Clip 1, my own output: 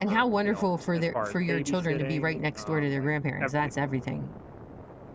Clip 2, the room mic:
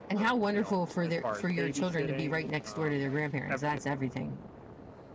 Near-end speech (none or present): none